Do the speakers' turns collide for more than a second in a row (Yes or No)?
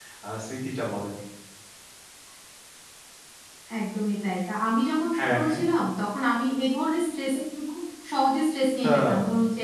No